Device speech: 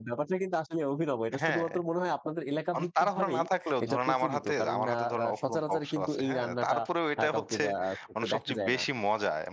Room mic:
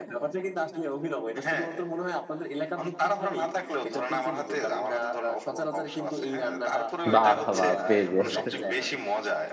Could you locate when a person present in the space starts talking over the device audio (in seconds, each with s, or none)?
7.1 s